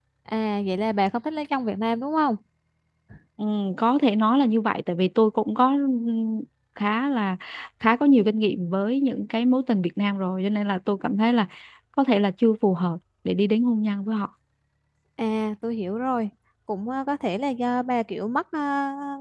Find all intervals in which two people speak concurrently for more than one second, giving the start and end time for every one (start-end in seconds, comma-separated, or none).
none